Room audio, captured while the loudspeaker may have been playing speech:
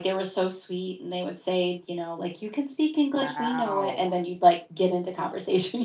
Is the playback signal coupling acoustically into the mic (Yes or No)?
Yes